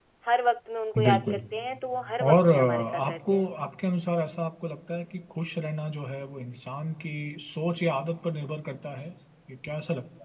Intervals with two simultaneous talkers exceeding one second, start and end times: 2.3-3.5

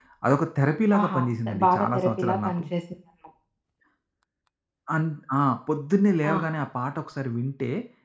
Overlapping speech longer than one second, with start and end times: 1.0-2.6

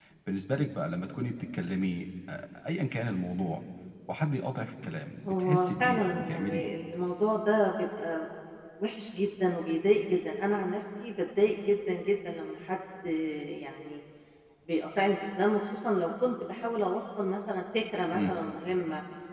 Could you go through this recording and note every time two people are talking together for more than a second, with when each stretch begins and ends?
5.3-6.7

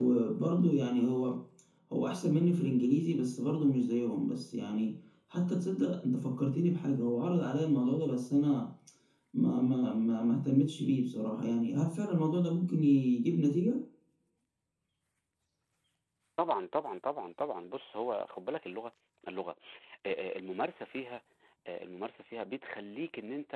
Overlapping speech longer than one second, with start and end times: none

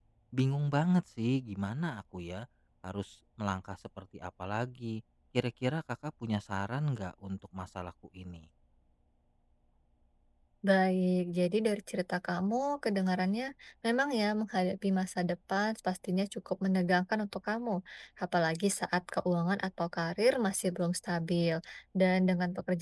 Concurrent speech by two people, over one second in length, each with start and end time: none

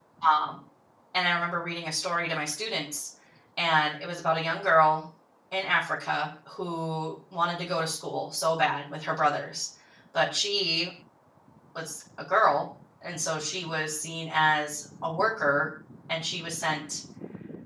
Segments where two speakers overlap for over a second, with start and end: none

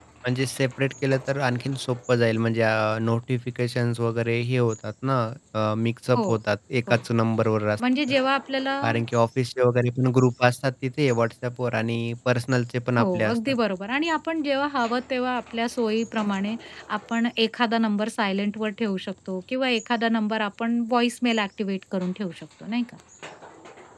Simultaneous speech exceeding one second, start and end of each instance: none

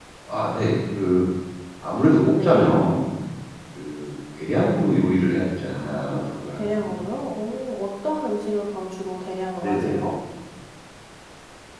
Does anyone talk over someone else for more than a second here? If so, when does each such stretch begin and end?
5.7-7.0

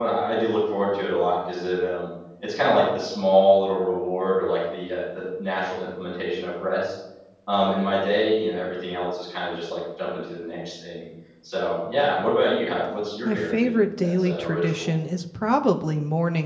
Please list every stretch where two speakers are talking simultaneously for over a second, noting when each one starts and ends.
13.2-14.9

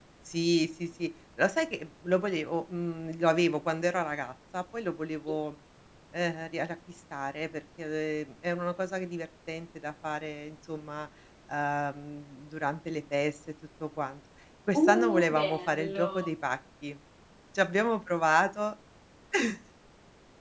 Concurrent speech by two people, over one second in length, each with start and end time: 14.8-16.3

